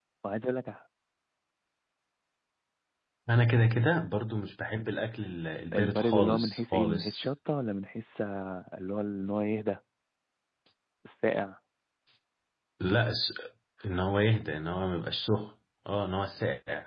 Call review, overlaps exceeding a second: present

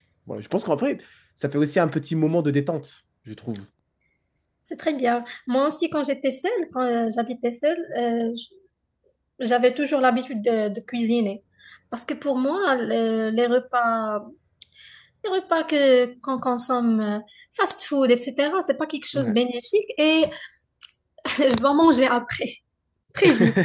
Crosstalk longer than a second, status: none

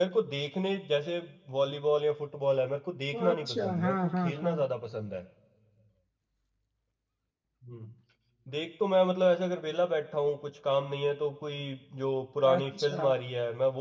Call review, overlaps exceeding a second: present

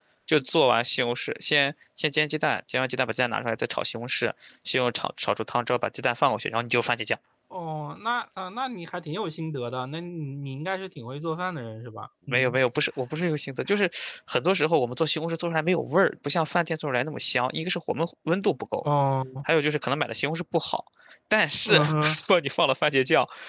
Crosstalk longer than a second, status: none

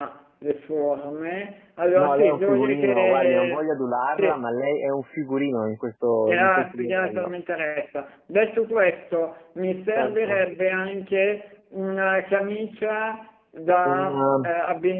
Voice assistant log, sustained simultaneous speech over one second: present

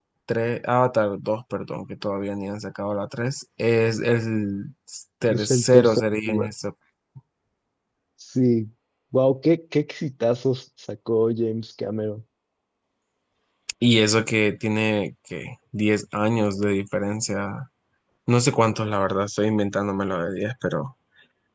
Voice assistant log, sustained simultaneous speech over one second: present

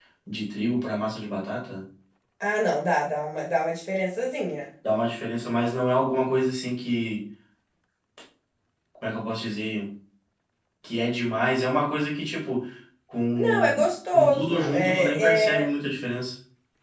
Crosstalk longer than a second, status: present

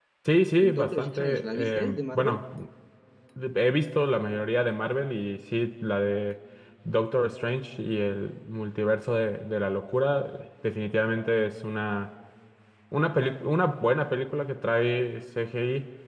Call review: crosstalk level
present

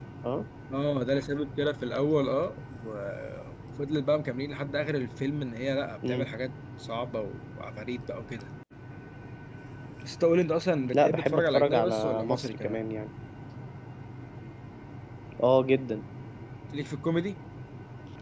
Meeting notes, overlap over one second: present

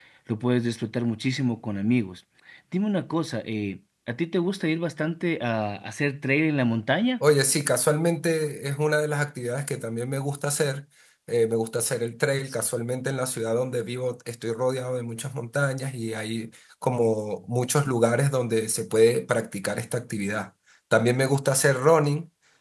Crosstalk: none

